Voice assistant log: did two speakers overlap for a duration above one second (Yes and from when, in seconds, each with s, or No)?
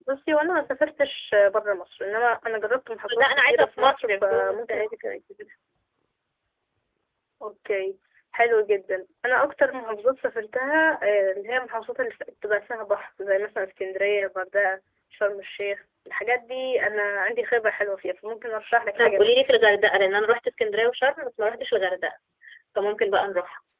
Yes, from 3.2 s